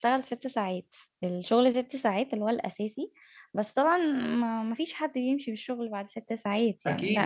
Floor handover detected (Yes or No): Yes